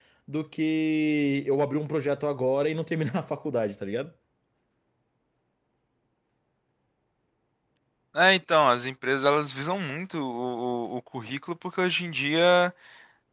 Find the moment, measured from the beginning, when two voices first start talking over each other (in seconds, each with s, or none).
none